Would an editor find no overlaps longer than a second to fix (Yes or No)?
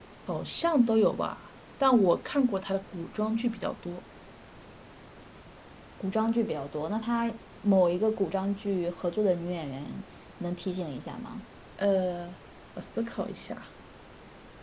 Yes